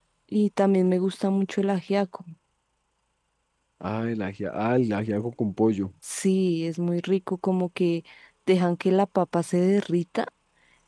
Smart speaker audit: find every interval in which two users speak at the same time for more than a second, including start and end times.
none

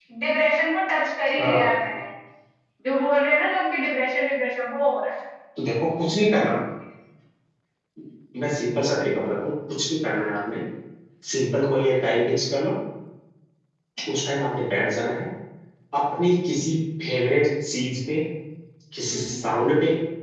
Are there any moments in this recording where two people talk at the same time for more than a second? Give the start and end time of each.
none

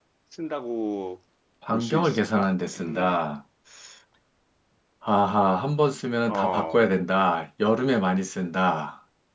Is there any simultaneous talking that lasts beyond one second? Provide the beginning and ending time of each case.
1.7-3.2

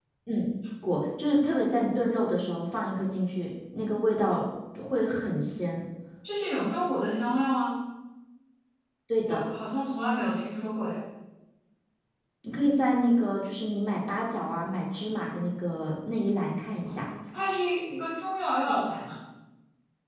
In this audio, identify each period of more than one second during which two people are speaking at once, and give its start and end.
none

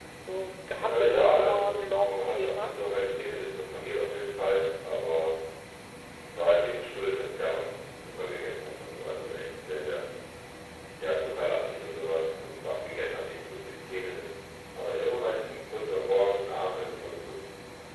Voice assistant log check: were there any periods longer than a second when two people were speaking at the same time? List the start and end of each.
0.8-2.8

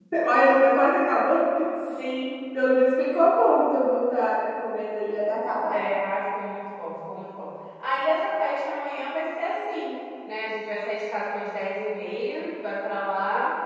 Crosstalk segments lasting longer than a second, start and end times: none

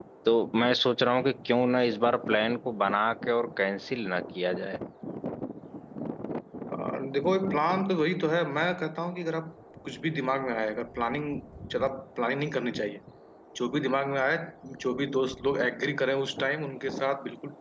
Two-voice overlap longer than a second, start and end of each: none

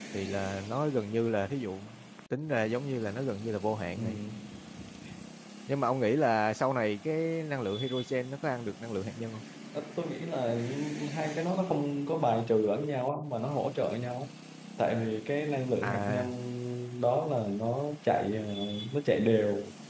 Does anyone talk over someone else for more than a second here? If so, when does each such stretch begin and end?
none

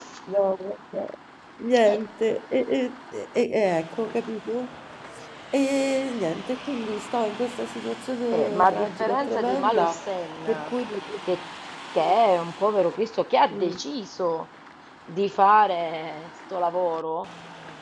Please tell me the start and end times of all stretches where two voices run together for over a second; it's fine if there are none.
8.3-10.0

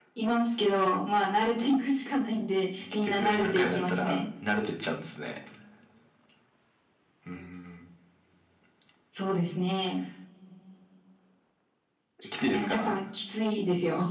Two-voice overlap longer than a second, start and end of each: 3.0-4.2

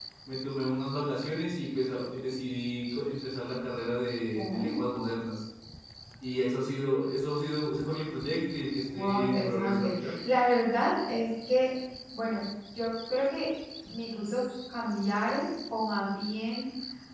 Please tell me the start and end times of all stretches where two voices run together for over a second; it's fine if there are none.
8.9-10.1

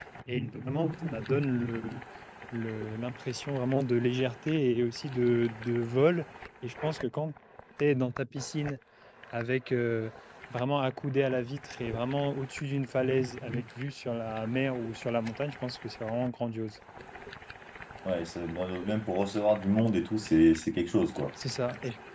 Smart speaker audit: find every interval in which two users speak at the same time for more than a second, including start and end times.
none

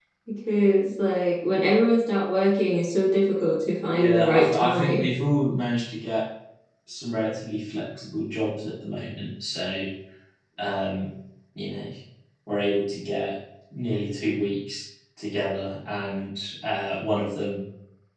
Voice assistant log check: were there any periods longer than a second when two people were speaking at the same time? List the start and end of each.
3.9-5.1

